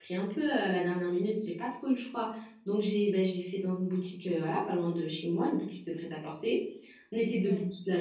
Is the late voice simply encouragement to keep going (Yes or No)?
Yes